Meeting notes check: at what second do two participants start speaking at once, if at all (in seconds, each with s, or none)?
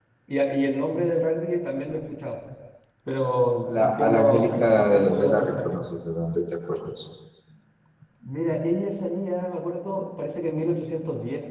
3.7 s